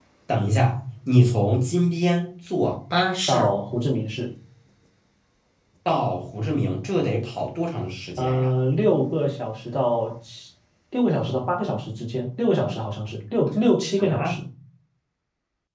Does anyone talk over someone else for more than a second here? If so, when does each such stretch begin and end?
none

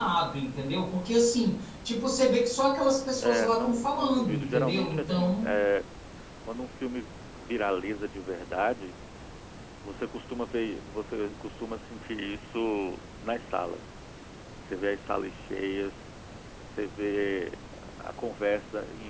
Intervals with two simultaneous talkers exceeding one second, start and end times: 3.2-5.5

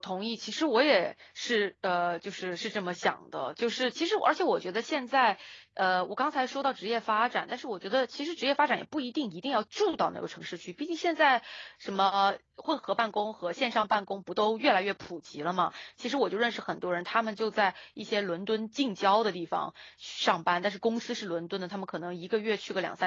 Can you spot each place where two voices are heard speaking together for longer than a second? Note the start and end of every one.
none

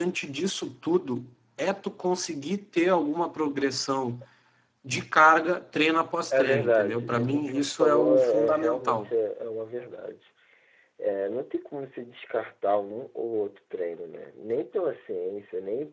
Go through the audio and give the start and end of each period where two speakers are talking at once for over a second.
6.3-9.1

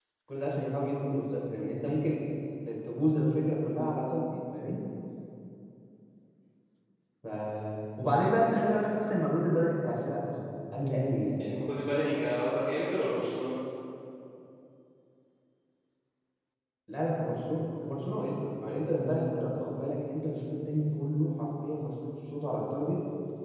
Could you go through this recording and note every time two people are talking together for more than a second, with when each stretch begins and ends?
none

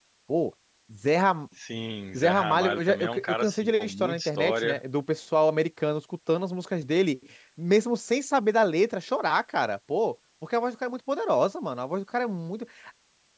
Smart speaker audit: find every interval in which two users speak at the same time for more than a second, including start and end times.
2.2-4.8

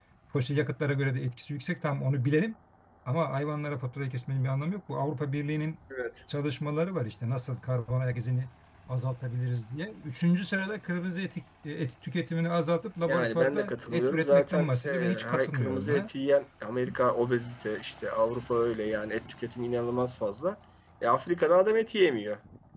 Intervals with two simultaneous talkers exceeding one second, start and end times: 13.1-16.1

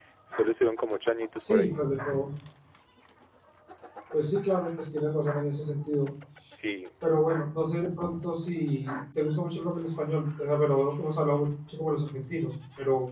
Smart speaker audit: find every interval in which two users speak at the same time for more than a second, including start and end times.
none

